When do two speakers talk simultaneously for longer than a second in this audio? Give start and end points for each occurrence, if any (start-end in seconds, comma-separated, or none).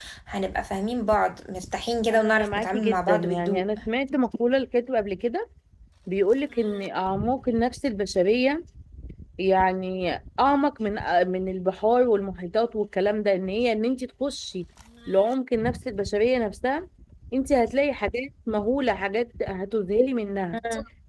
2.1-3.7